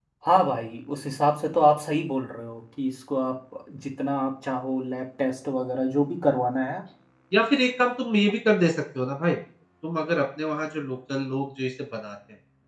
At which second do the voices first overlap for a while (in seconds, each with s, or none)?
none